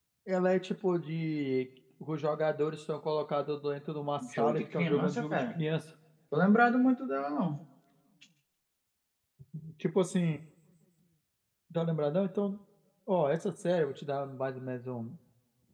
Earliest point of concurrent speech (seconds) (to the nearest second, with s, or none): 4 s